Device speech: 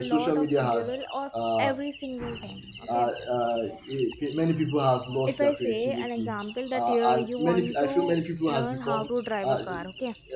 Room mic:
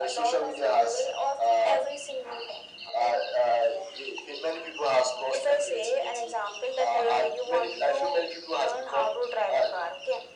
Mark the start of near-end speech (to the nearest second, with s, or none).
none